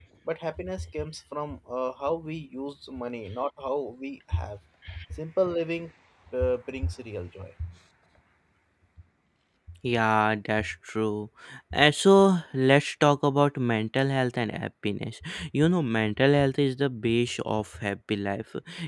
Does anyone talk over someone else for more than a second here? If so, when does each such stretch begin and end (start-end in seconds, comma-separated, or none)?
none